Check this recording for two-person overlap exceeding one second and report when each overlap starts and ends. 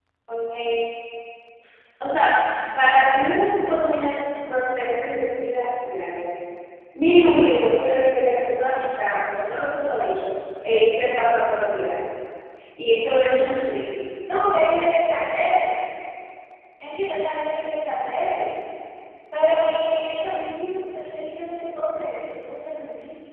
none

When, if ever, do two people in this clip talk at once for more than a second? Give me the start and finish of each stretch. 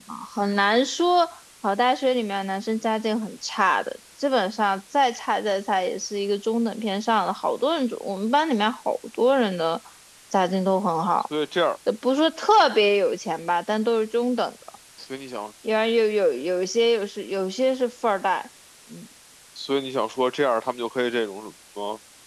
none

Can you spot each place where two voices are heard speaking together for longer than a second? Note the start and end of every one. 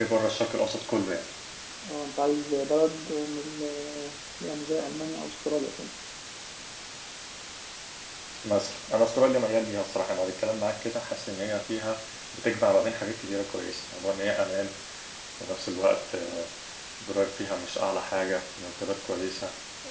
none

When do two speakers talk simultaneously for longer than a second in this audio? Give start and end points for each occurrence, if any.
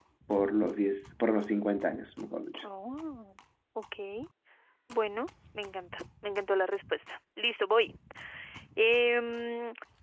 none

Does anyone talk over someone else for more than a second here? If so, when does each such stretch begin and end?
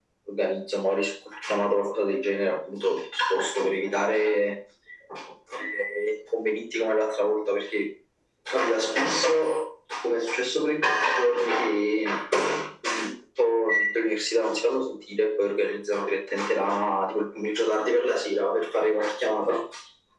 none

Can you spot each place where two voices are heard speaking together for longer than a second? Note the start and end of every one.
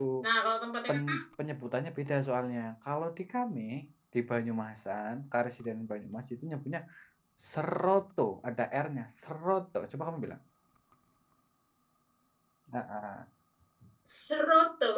none

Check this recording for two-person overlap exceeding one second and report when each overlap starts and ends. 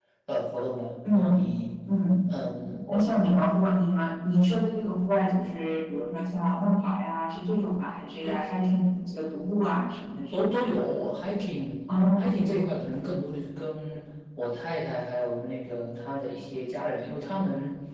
none

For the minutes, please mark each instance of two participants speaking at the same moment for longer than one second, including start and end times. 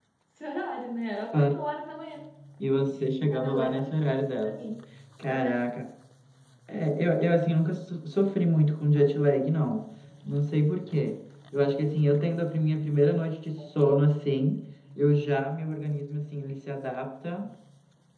none

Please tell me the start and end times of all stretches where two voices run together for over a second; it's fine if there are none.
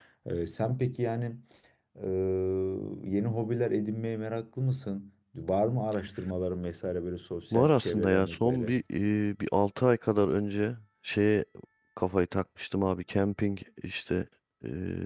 7.5-8.7

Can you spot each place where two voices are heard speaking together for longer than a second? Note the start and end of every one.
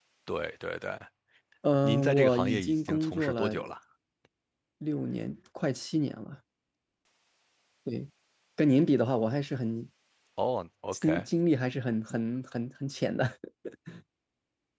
1.8-3.5

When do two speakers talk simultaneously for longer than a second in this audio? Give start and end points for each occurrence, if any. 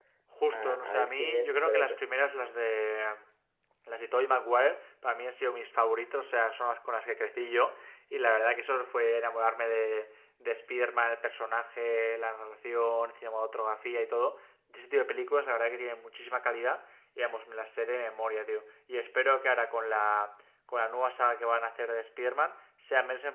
0.5-2.0

